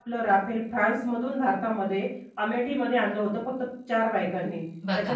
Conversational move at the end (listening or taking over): listening